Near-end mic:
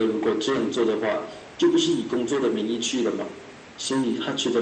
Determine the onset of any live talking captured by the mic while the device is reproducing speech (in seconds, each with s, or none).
none